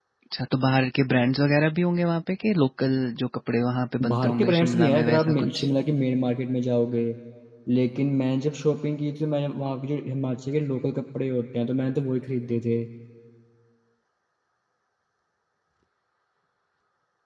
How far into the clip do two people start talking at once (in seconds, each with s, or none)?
4.0 s